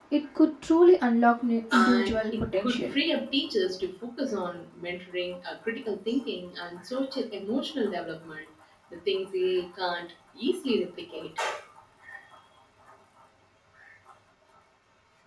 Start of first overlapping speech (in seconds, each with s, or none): 1.7 s